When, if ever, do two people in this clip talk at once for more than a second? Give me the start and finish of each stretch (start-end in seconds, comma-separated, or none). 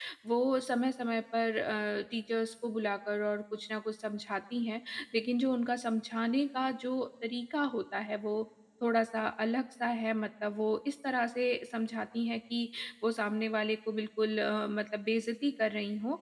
none